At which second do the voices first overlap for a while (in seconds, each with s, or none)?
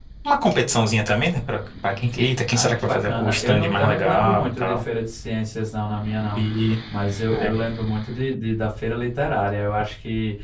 2.5 s